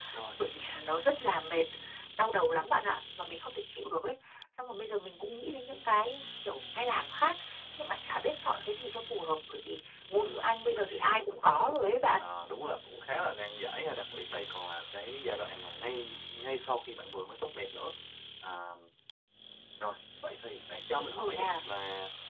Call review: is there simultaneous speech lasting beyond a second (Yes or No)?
Yes